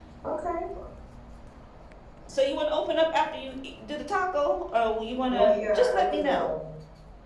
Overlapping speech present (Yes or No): Yes